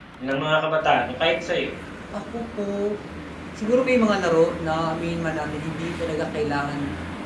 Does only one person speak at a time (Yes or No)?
Yes